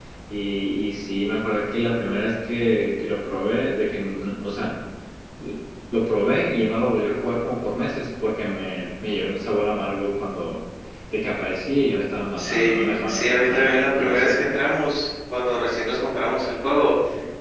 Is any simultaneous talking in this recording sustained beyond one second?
Yes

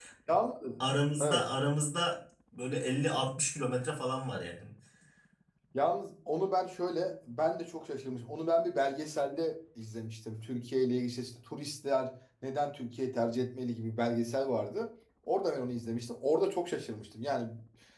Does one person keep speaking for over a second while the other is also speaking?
No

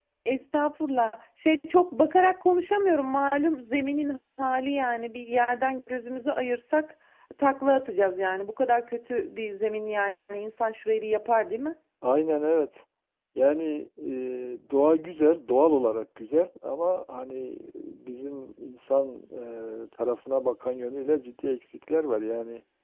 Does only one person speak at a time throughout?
Yes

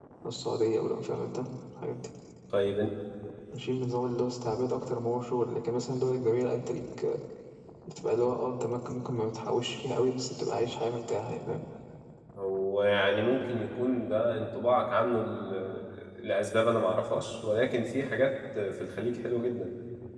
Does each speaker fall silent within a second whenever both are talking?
Yes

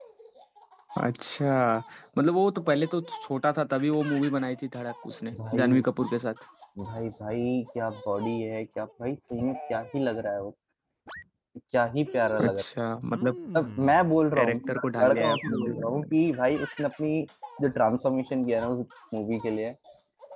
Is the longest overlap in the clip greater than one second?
Yes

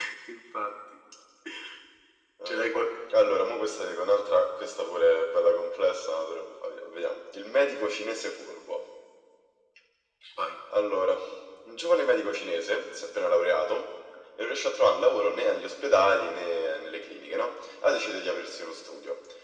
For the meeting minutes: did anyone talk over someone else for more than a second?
No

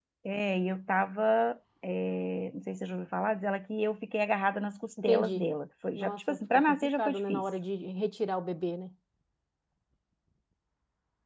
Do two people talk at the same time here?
Yes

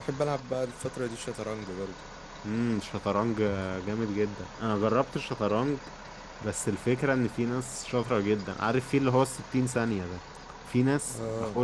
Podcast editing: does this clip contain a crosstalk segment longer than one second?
No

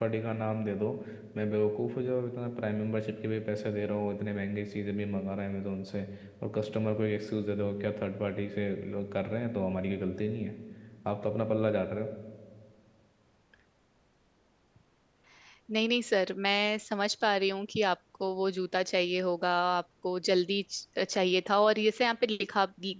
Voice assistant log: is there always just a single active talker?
Yes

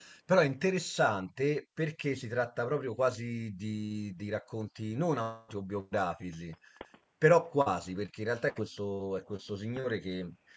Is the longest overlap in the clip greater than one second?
No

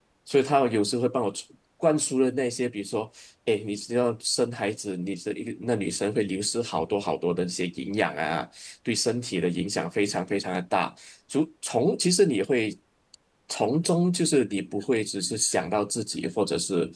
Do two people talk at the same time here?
No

